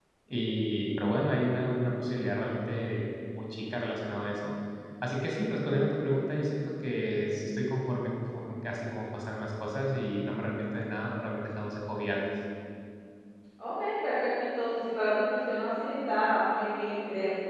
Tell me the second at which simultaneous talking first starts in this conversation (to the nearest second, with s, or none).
none